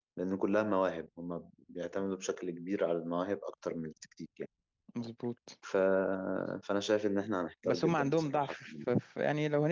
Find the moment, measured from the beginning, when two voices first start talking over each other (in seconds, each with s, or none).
7.6 s